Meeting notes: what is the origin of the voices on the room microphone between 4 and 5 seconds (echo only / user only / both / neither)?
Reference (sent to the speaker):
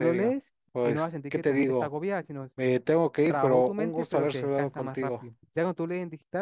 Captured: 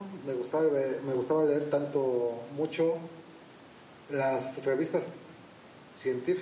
user only